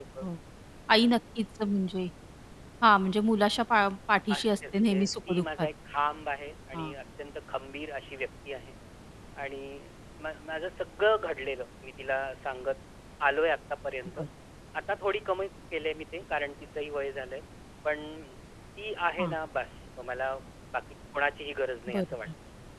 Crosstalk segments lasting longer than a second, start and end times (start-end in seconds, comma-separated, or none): 4.3-5.7